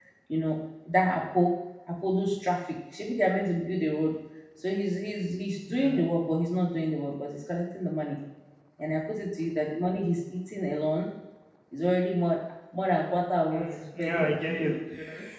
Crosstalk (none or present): present